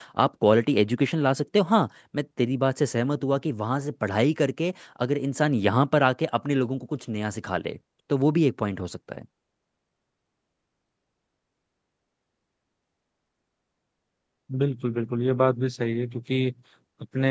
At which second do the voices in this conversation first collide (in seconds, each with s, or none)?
none